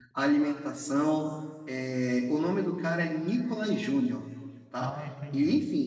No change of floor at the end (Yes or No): Yes